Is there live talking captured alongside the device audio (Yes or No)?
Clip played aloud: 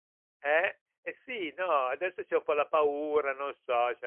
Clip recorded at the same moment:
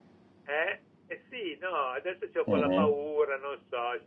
Yes